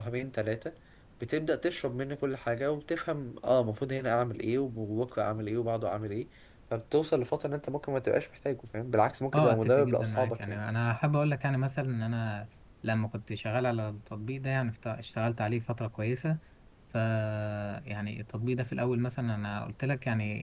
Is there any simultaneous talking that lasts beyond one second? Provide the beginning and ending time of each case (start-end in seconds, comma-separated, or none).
9.3-10.6